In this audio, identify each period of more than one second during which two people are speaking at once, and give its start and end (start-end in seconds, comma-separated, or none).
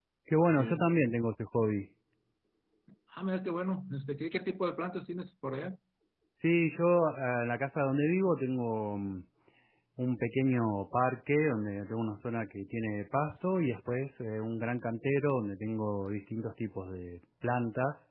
none